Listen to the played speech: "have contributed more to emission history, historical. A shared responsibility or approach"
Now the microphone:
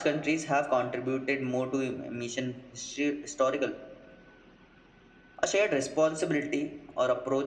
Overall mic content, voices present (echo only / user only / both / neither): echo only